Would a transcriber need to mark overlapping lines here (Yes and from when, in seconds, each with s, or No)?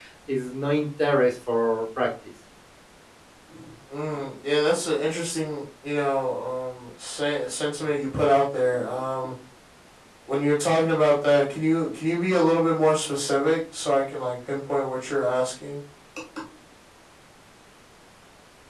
No